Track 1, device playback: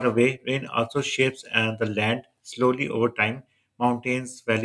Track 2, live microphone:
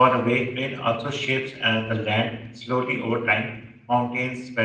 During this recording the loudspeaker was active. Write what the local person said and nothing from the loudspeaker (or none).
none